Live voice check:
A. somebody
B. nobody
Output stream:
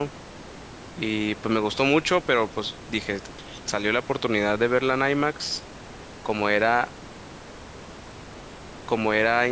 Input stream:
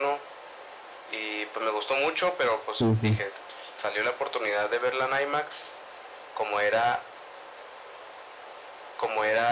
A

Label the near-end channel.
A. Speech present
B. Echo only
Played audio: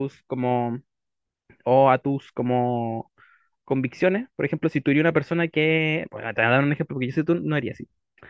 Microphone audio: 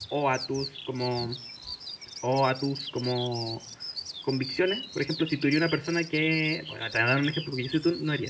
B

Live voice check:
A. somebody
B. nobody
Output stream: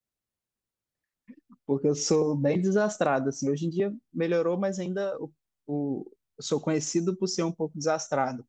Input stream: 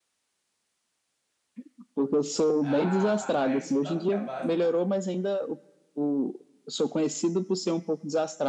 A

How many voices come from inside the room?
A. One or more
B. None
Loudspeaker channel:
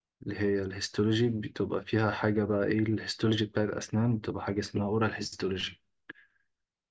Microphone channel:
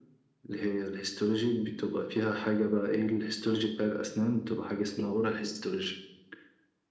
B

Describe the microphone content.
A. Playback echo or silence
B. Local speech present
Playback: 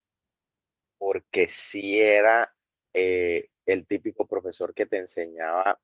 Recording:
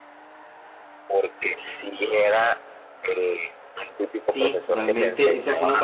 B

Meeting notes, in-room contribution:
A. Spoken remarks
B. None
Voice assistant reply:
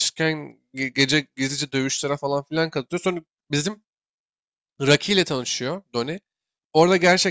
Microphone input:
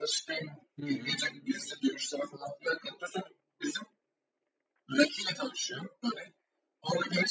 A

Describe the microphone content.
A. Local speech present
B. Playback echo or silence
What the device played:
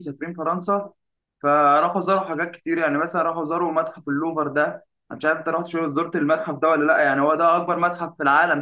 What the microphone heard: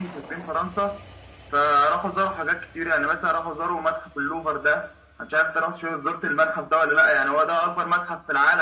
B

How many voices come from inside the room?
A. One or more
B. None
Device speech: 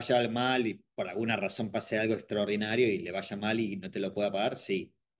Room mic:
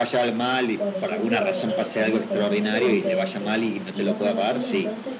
A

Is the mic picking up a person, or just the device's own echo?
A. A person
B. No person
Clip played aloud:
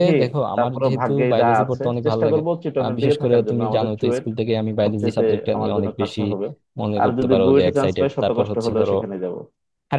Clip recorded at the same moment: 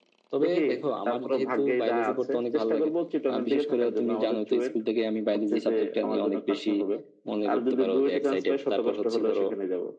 B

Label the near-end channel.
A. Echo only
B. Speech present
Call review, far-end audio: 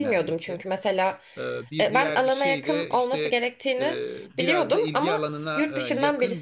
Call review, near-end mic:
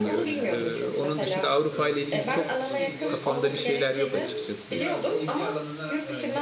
B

